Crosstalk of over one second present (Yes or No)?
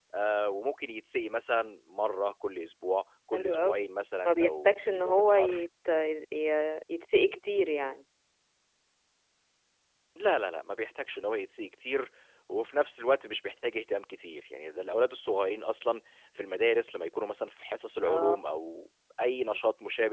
Yes